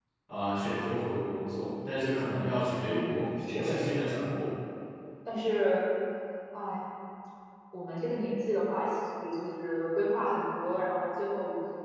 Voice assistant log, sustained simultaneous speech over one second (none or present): present